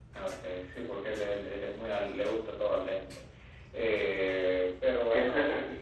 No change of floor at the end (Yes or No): Yes